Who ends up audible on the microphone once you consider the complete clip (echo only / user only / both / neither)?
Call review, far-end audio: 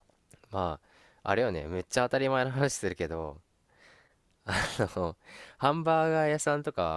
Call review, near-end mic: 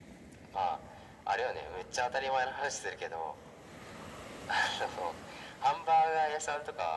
echo only